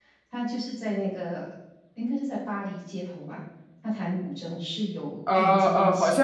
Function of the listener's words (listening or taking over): taking over